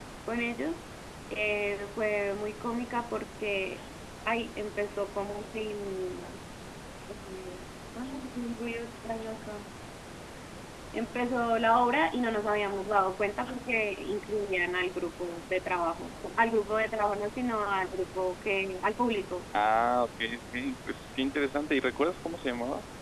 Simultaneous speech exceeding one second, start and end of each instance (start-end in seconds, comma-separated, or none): none